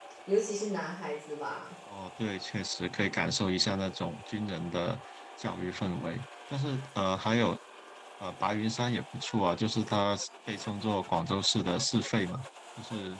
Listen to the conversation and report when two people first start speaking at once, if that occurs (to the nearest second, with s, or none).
none